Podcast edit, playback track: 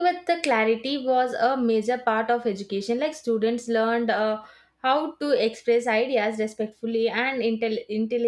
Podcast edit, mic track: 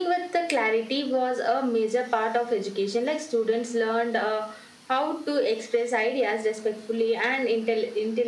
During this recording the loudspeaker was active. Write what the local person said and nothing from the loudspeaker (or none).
none